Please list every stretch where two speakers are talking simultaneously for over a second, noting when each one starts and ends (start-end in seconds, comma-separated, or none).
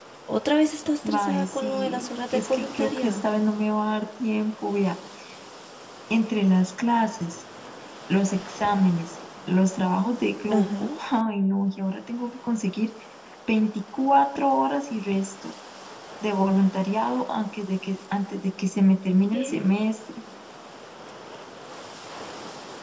1.1-3.2